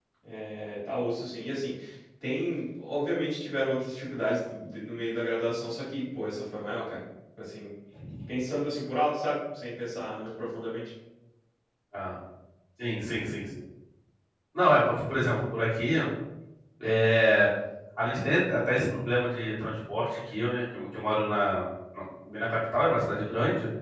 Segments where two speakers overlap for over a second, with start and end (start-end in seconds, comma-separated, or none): none